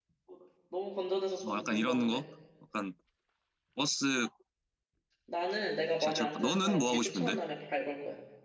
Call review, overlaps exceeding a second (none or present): present